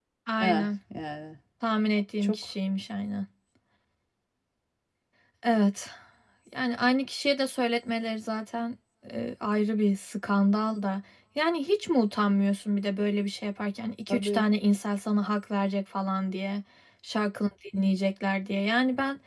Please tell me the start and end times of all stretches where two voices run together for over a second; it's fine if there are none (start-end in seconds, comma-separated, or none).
none